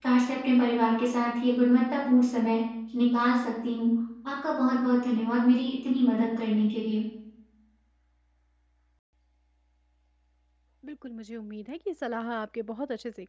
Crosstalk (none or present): none